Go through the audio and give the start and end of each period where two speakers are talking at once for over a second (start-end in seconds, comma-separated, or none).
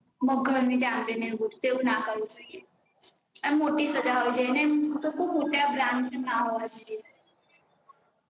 none